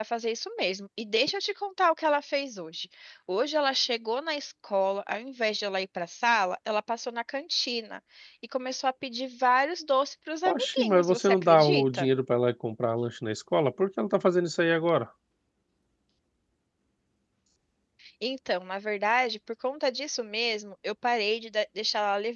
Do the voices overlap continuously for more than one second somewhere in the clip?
Yes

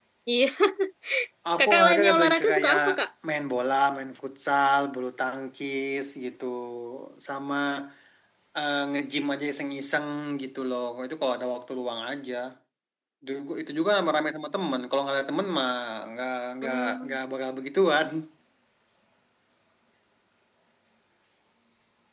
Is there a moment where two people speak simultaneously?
Yes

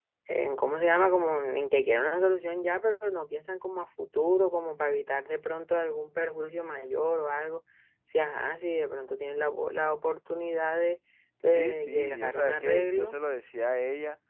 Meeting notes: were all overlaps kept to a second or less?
No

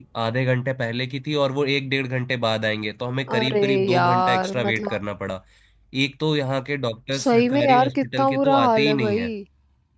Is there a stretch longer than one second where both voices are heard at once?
Yes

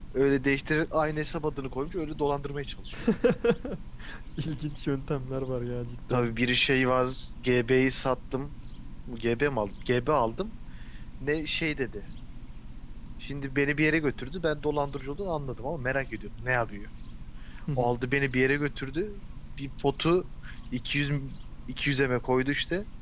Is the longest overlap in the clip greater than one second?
No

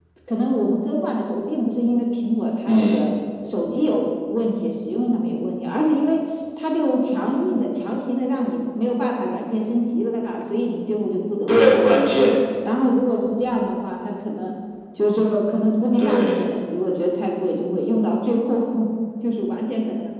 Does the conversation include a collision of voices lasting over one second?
No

